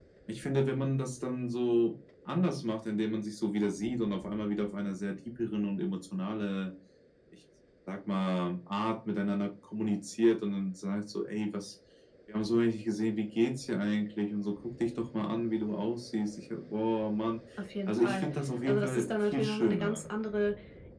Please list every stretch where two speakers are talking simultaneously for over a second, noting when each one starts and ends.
18.7-20.0

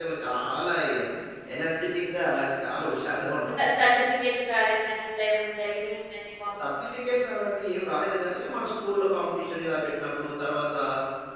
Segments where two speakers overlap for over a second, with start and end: none

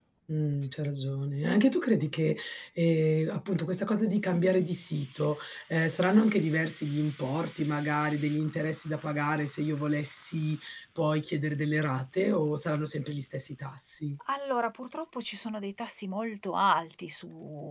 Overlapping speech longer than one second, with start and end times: none

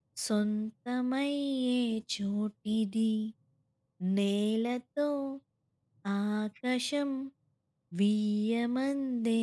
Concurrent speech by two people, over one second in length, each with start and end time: none

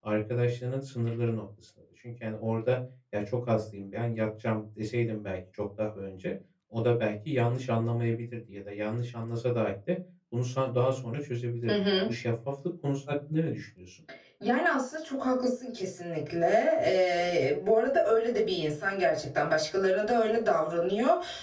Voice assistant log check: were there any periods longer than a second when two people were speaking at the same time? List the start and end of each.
none

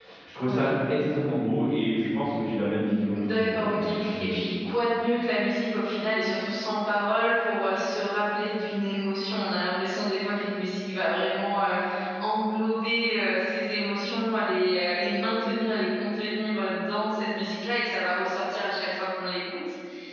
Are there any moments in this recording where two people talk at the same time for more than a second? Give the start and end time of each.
3.2-4.4

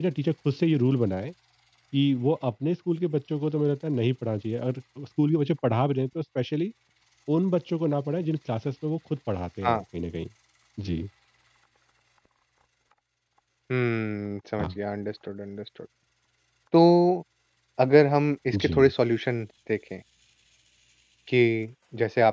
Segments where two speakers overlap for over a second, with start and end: none

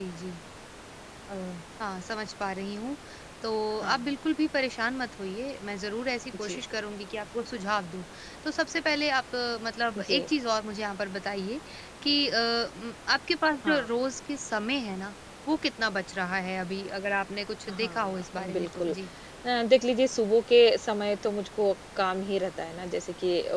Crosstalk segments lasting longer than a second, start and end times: 17.7-18.9

